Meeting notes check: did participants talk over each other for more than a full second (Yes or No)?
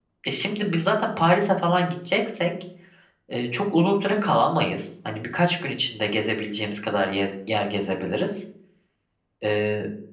No